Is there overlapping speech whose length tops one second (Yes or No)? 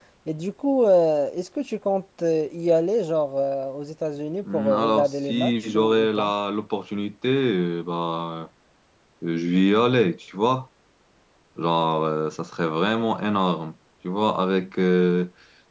Yes